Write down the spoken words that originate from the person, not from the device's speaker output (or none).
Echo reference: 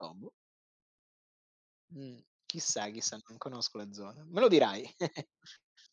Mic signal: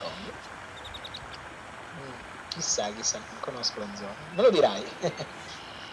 none